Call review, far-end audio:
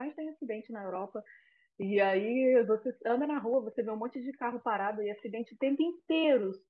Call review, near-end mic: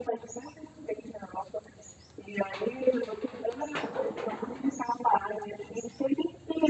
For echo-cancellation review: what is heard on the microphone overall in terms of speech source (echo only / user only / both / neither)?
echo only